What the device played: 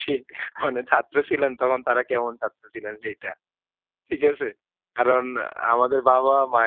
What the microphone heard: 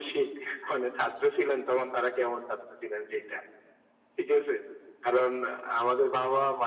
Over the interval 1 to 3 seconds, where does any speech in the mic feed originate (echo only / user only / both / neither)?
echo only